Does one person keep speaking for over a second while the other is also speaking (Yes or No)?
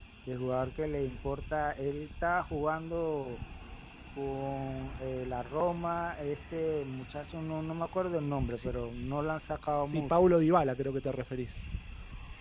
No